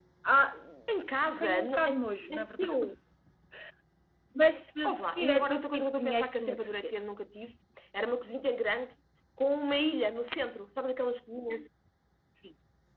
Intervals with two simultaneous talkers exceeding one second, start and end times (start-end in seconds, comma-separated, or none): 1.4-2.7, 4.9-6.9